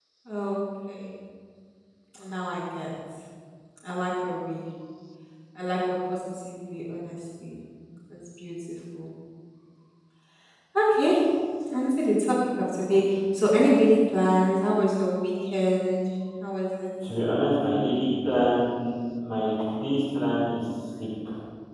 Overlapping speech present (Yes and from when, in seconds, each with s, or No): No